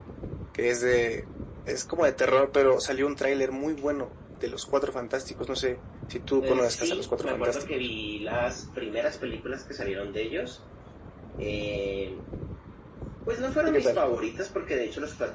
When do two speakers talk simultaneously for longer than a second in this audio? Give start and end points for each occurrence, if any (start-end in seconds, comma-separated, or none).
6.4-7.7